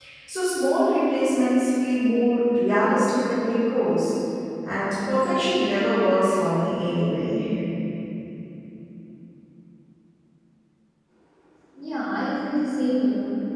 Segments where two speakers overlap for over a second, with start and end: none

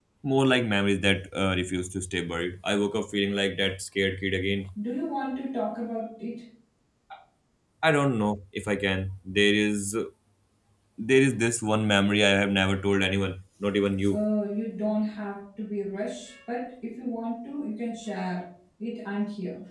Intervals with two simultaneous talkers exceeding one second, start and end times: none

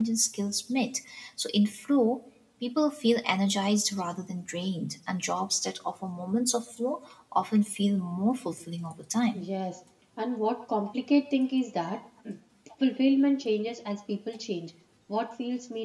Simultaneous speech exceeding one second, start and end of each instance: none

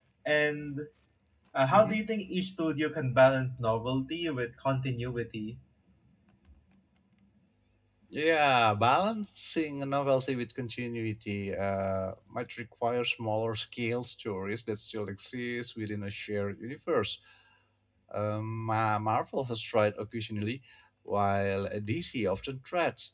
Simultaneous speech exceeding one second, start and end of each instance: none

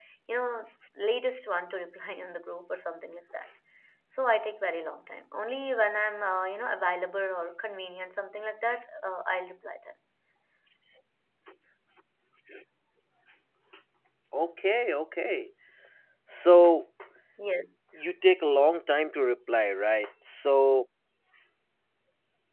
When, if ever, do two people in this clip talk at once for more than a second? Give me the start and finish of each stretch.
none

